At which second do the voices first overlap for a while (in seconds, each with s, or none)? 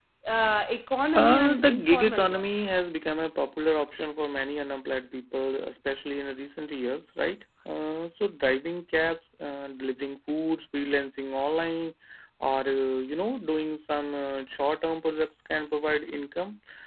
1.1 s